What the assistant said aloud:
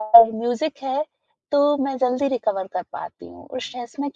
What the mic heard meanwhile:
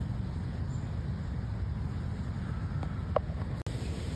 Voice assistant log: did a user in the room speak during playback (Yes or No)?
No